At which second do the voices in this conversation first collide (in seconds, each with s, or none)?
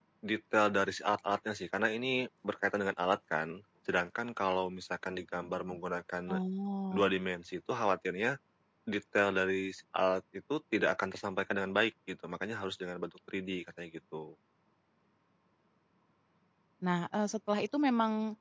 none